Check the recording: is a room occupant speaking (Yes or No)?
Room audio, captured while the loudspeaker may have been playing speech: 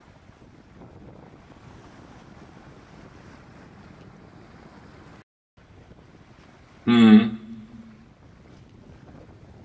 Yes